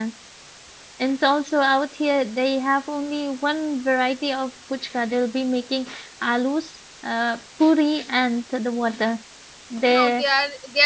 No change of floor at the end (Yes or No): No